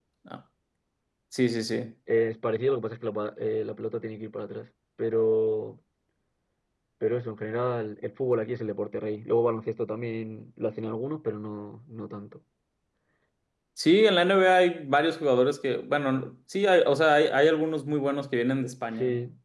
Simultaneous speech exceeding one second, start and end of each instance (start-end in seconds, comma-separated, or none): none